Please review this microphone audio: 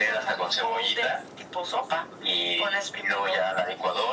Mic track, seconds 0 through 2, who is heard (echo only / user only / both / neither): echo only